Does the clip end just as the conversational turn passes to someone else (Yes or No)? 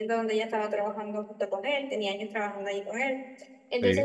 No